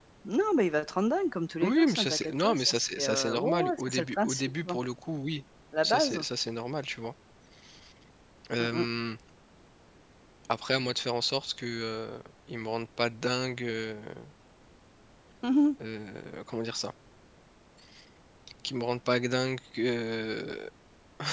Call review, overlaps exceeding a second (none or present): present